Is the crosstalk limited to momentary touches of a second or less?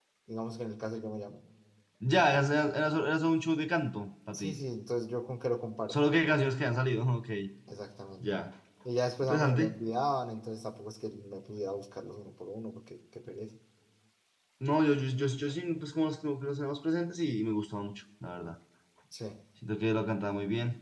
Yes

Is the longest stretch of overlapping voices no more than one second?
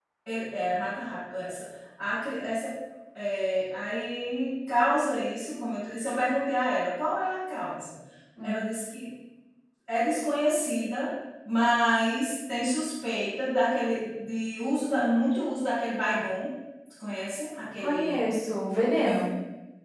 Yes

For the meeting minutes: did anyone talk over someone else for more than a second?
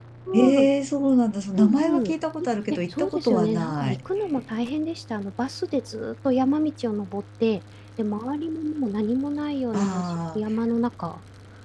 Yes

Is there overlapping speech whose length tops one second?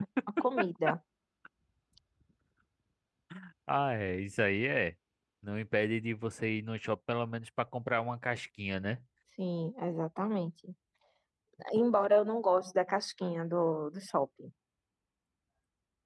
No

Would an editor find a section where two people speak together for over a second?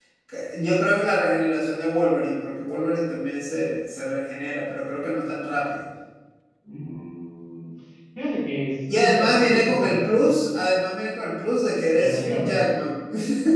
Yes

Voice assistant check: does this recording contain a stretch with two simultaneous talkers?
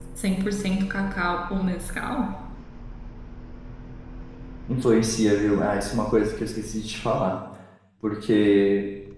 No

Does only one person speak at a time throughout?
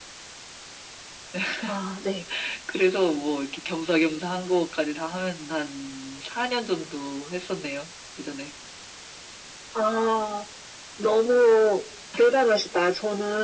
Yes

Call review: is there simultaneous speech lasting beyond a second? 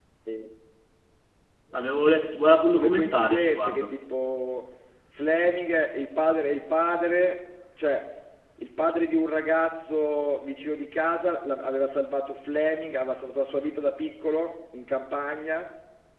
Yes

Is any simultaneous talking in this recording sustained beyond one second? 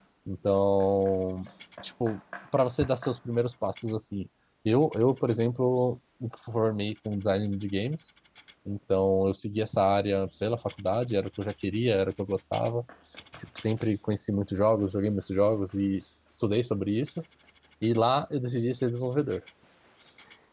No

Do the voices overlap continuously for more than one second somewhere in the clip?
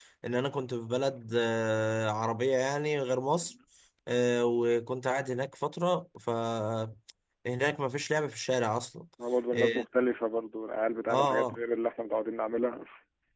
No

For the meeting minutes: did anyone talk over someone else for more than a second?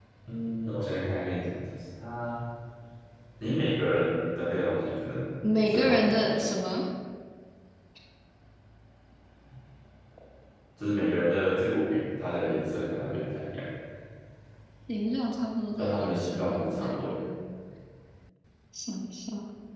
Yes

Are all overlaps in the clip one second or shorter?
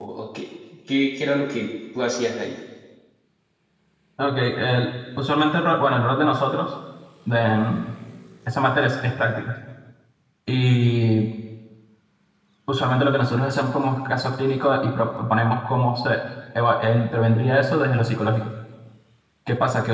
Yes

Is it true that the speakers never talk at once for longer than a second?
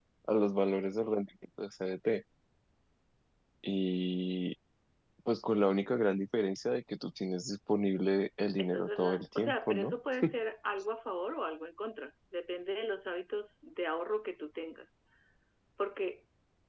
No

